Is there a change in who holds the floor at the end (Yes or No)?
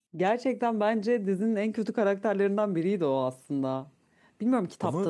No